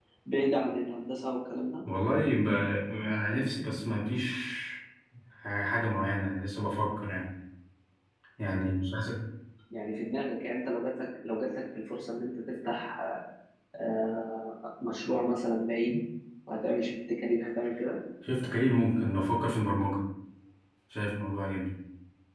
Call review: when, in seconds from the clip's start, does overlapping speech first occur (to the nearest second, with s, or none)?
none